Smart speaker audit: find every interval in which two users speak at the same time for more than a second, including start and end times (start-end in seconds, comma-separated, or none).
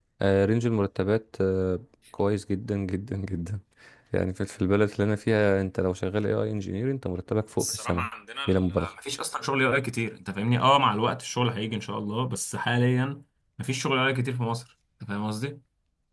none